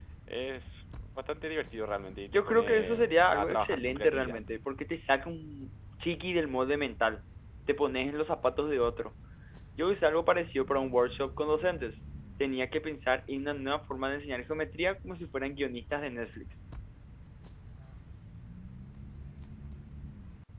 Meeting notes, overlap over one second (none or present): present